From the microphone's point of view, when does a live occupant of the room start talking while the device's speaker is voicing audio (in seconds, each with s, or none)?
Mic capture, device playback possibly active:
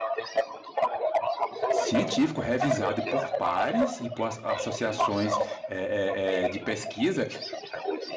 1.7 s